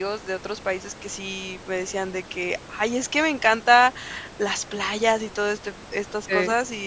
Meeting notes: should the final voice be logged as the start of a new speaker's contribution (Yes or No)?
No